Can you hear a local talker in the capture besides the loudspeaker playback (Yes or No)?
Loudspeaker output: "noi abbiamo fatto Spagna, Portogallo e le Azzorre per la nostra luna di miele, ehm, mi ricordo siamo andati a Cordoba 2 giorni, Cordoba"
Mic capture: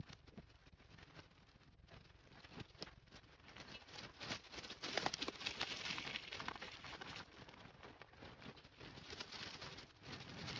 No